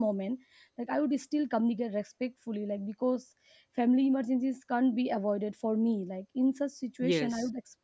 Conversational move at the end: listening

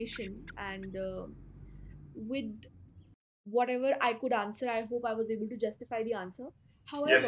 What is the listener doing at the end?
taking over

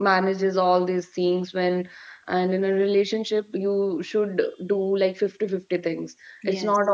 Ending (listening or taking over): listening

